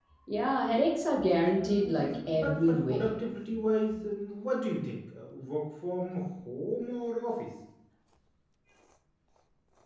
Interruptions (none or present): present